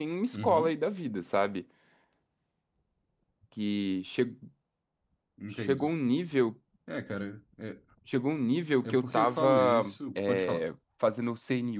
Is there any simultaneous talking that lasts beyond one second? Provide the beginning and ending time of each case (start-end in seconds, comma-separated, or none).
8.8-10.6